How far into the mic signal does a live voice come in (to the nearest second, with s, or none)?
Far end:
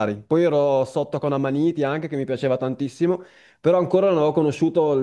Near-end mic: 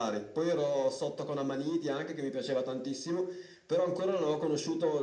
none